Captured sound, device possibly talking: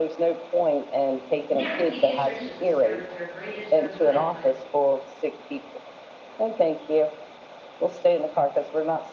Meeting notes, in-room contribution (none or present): present